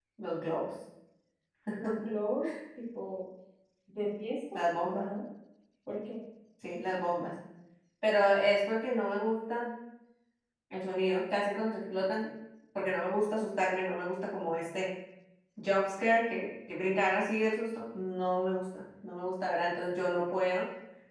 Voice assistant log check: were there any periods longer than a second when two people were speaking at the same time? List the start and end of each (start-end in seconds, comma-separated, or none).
none